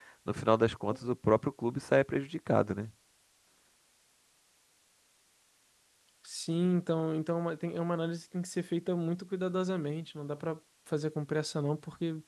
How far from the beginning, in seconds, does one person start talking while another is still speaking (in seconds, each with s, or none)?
none